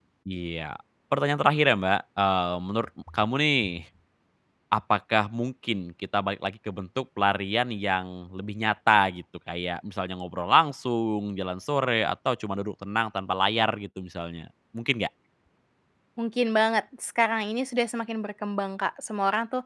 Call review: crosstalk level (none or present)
none